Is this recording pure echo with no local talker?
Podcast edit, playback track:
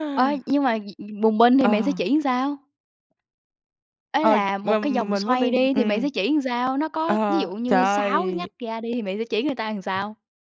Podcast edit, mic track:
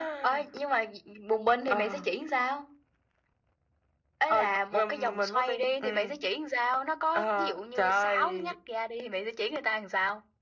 Yes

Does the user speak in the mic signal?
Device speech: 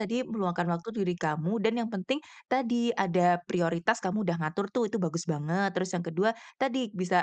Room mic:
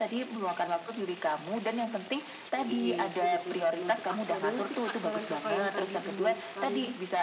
Yes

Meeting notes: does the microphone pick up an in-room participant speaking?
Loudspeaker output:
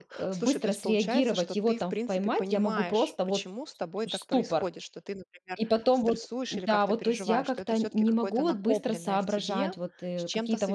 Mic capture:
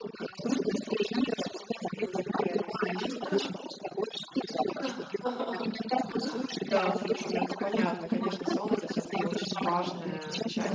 Yes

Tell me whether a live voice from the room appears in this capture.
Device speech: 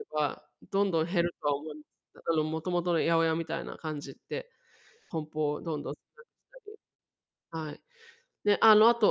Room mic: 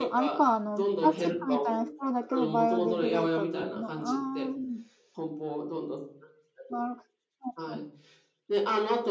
Yes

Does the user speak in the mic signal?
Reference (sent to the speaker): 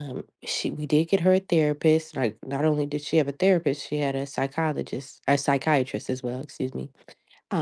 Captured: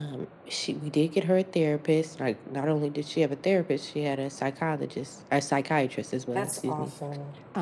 Yes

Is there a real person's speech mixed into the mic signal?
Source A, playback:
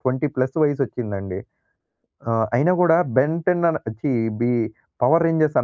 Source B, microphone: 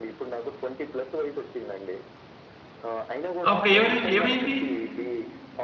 Yes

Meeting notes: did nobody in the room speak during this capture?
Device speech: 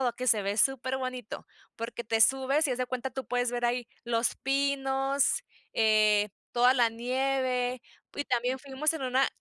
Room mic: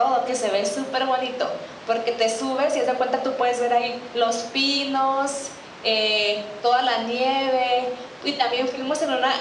Yes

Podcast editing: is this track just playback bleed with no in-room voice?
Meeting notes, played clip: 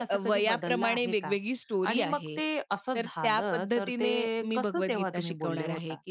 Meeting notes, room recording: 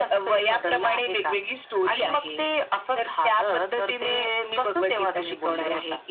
Yes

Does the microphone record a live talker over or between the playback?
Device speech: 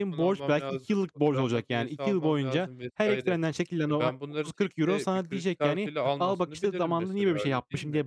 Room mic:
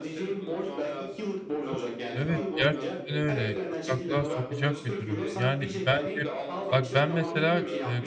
Yes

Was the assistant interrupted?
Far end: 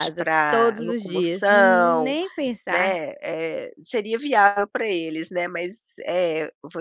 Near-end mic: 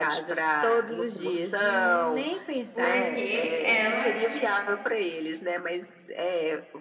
Yes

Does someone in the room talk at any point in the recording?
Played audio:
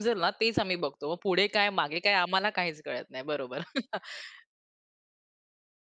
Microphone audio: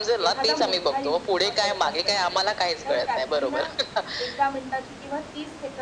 Yes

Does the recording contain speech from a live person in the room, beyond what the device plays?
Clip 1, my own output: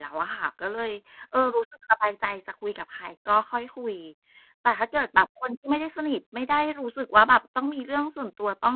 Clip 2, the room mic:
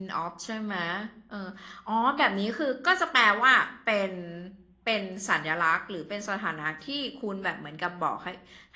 Yes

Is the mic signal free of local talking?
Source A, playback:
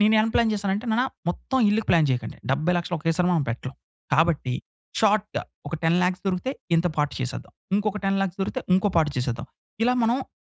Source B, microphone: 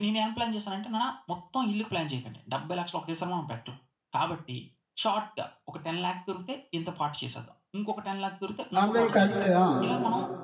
No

